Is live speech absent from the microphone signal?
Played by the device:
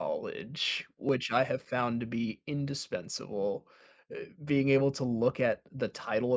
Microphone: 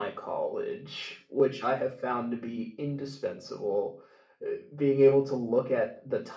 Yes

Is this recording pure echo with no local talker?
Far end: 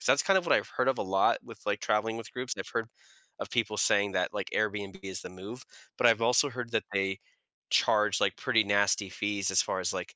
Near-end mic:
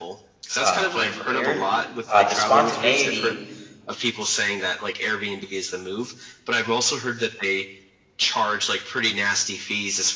No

